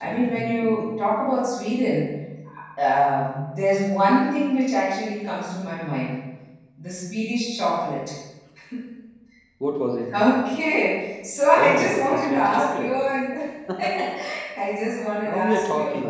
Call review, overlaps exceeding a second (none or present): present